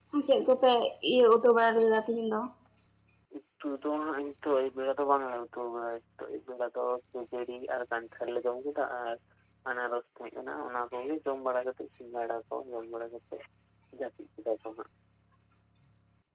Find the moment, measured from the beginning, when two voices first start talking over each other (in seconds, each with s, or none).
none